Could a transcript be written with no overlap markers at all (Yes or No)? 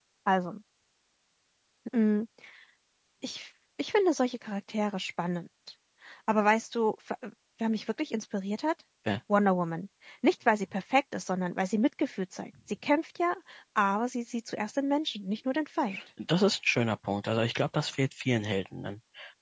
Yes